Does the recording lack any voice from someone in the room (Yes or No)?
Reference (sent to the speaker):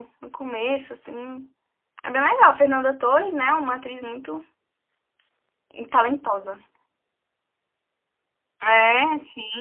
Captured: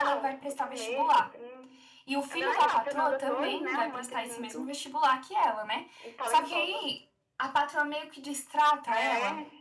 No